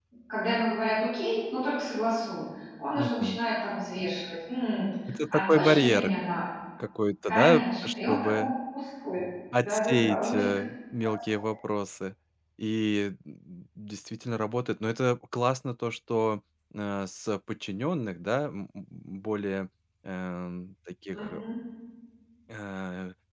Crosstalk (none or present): present